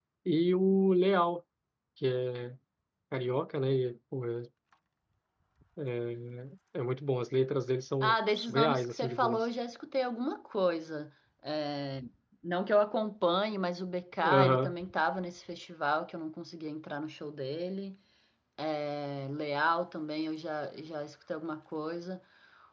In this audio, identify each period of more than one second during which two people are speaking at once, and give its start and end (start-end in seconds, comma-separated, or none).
8.0-9.5